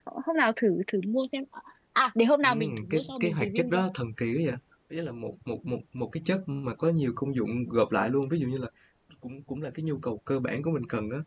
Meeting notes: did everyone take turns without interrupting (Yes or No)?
No